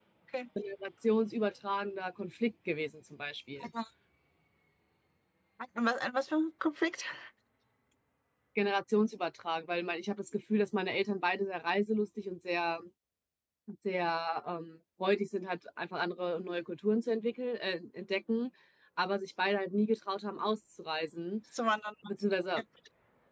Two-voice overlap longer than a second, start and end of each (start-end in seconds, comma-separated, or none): none